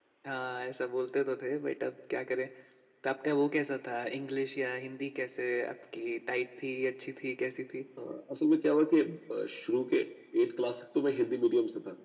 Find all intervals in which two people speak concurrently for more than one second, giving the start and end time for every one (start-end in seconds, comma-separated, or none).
none